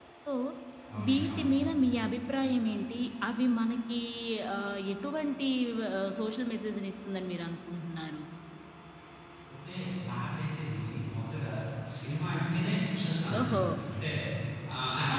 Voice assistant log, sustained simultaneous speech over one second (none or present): none